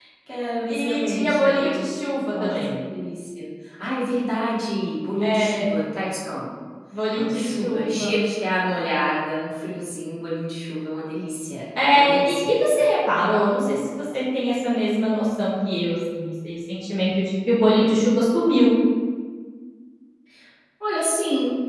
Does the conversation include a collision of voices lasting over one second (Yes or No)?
Yes